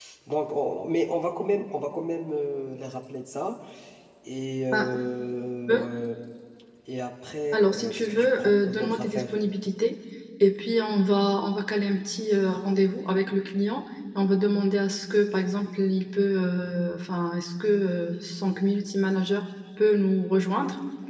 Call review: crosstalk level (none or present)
present